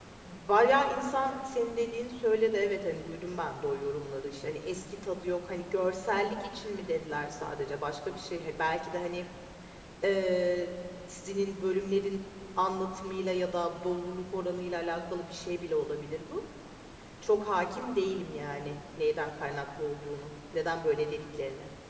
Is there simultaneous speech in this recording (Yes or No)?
No